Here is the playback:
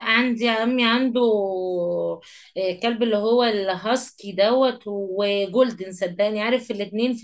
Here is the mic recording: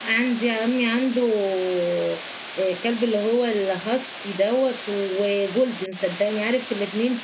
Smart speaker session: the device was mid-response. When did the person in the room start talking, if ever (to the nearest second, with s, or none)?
none